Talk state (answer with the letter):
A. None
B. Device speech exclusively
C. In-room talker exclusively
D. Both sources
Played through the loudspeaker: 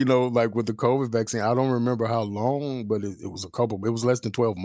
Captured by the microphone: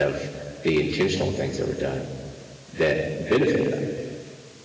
C